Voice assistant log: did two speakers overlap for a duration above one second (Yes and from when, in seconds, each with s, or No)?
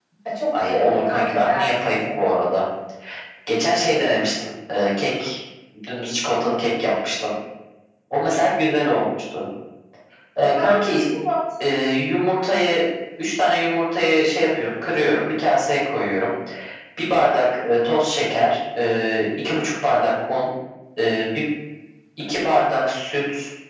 Yes, from 0.6 s